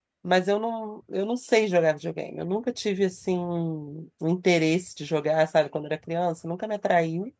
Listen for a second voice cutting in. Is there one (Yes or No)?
No